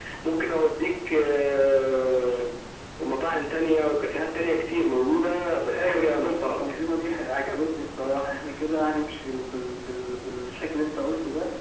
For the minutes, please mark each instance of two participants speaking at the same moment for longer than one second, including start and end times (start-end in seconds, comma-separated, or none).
5.5-6.8